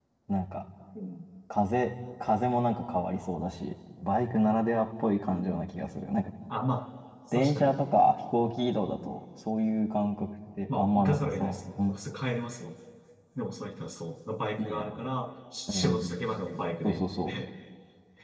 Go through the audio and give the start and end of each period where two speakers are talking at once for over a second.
10.7-12.0

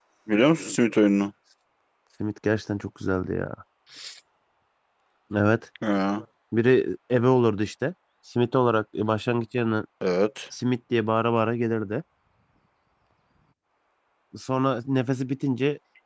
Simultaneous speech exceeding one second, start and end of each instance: none

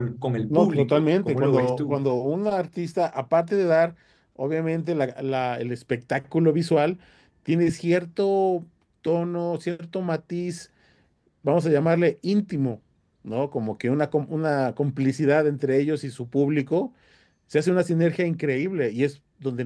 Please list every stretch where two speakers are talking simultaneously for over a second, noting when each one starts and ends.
0.5-2.0

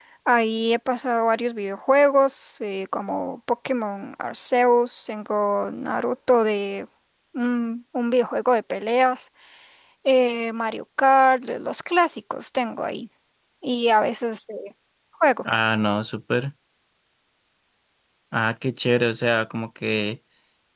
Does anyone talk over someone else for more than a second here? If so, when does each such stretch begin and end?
none

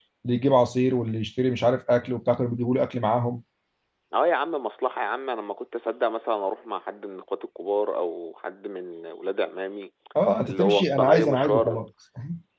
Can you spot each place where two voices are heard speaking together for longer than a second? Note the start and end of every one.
10.4-11.8

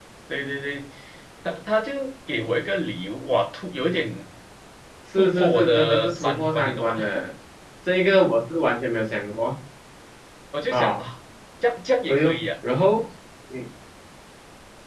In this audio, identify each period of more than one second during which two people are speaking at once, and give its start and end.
5.2-6.9

